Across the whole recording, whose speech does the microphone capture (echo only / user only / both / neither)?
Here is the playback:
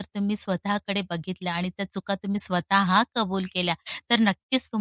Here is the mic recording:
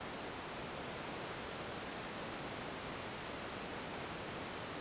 neither